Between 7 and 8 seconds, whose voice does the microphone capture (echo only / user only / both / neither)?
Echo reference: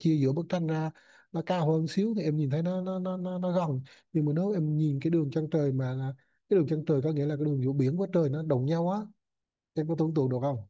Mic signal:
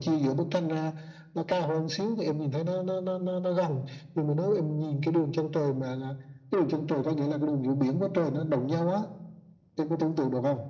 echo only